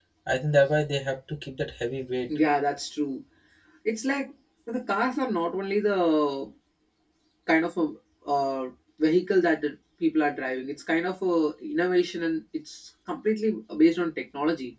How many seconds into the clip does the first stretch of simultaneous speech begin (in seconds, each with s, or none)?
none